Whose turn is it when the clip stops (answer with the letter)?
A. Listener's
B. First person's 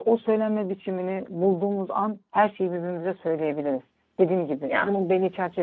B